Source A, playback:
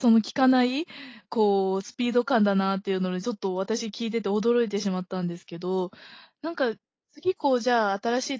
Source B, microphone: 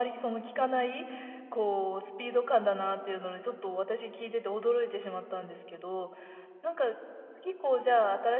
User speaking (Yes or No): No